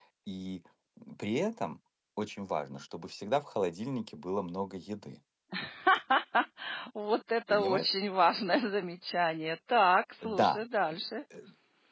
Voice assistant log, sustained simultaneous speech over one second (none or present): none